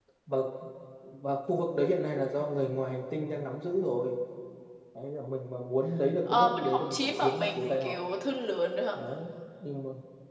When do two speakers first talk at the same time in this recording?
6.3 s

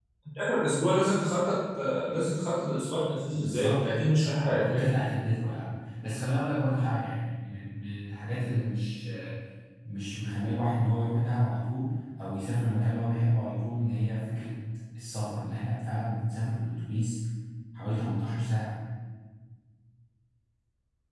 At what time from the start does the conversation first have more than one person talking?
3.3 s

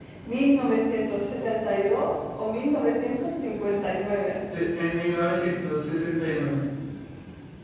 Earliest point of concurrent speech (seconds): none

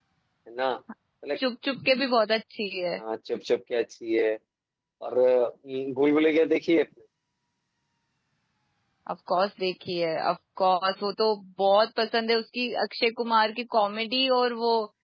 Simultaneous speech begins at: none

